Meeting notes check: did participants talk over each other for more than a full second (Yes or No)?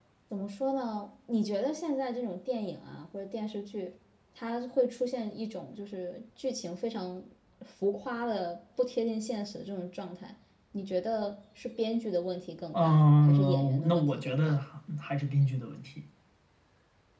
Yes